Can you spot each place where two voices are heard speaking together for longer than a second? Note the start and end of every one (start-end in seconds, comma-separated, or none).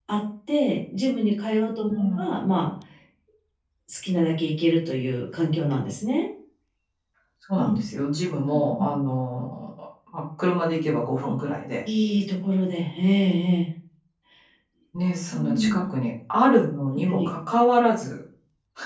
none